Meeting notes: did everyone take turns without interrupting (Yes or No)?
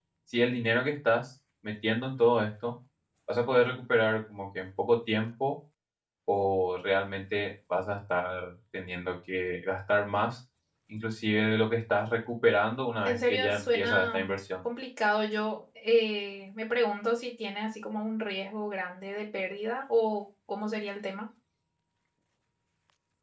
No